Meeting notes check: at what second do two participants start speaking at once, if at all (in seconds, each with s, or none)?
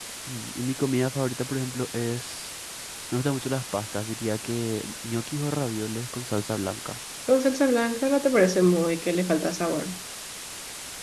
none